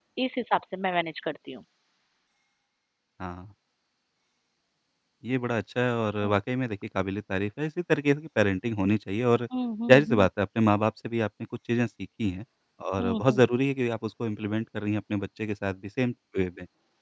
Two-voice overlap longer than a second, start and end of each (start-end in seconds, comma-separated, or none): none